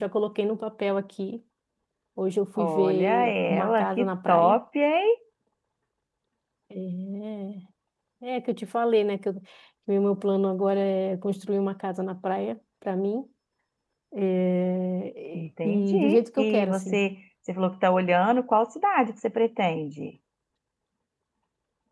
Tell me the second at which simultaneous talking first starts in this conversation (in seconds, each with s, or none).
2.6 s